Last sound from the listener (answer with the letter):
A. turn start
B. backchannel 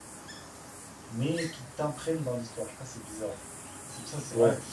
B